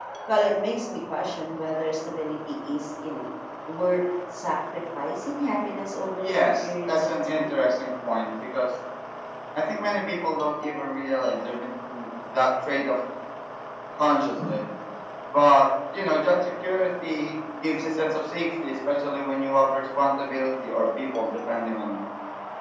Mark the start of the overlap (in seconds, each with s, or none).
6.2 s